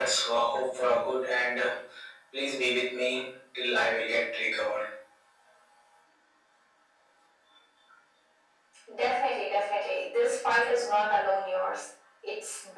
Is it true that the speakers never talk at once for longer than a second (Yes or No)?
Yes